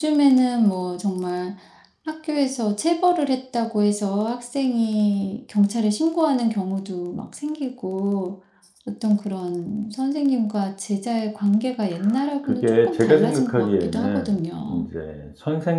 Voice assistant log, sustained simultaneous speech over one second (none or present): present